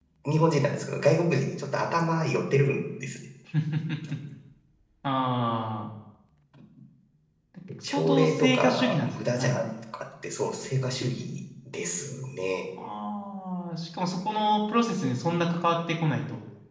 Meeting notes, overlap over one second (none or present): present